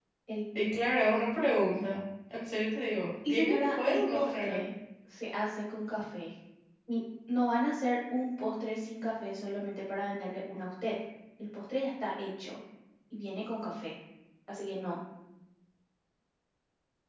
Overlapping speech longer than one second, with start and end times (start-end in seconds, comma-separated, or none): 3.3-4.6